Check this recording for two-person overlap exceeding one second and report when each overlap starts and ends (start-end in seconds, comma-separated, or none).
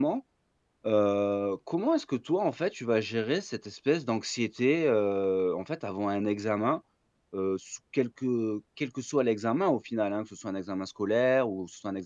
none